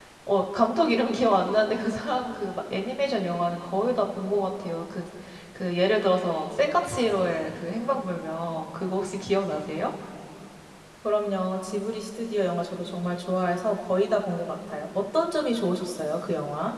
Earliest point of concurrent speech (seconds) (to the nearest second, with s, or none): none